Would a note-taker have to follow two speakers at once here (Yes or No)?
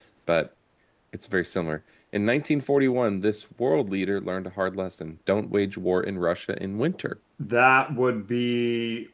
No